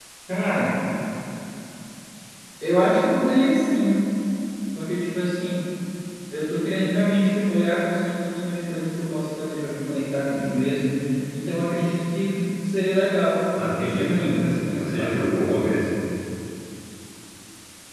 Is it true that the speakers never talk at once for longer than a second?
No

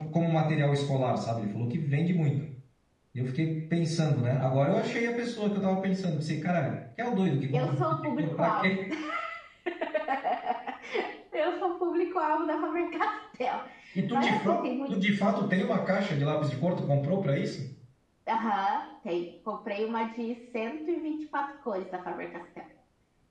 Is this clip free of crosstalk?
No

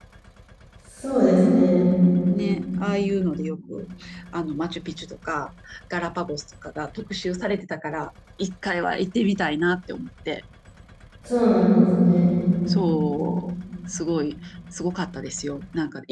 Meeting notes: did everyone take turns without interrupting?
Yes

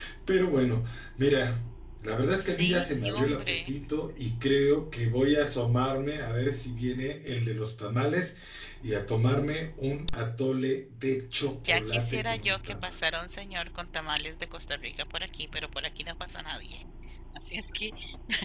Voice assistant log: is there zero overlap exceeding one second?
No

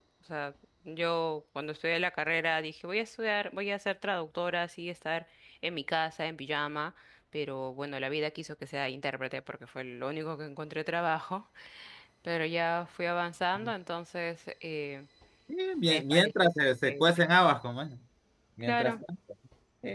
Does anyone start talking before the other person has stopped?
Yes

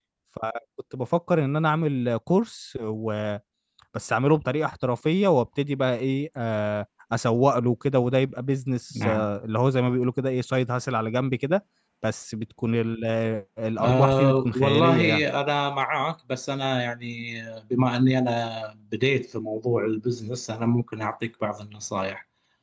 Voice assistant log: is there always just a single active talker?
No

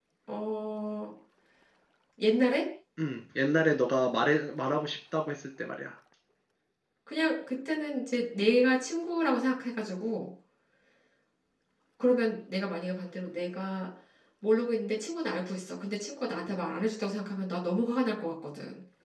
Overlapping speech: No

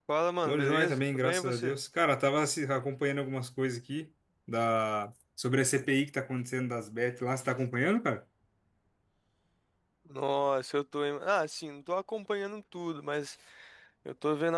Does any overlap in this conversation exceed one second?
Yes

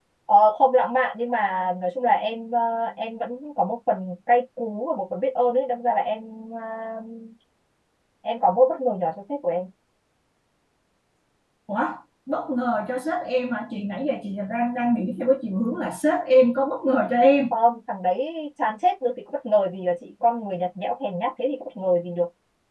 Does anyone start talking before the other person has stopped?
No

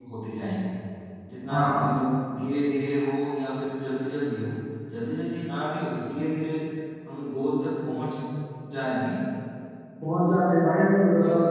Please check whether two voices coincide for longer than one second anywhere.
No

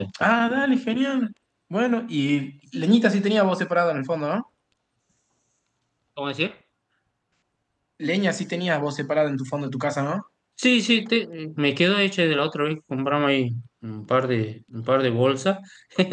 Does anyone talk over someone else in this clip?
No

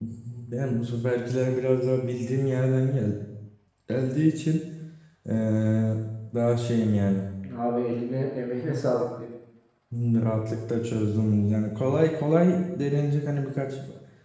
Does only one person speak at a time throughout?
Yes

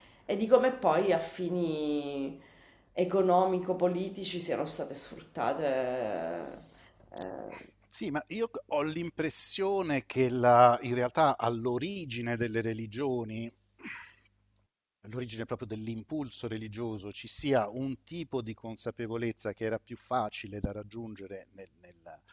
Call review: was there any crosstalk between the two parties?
No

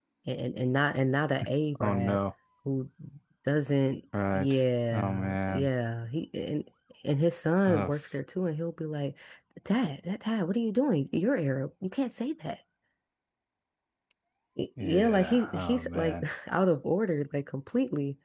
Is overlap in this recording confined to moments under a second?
No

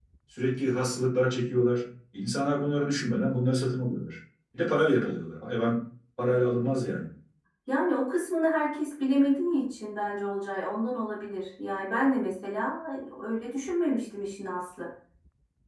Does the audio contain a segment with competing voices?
No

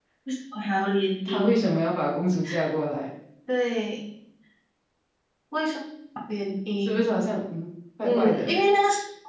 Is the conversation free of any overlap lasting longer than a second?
Yes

